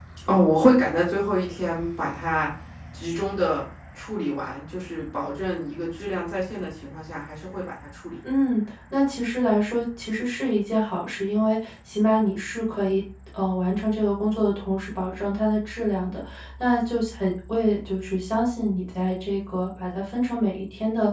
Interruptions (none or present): none